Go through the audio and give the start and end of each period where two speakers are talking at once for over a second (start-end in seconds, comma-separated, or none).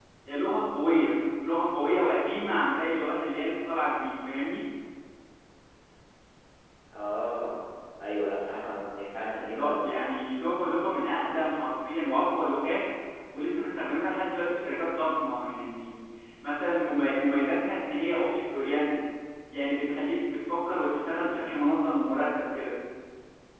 none